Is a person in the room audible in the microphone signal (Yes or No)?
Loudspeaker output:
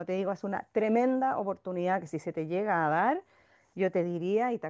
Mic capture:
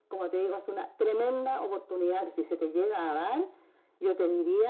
No